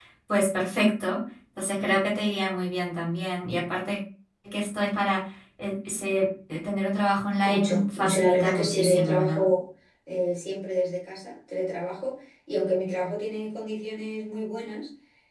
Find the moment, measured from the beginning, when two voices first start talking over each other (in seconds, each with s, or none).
7.4 s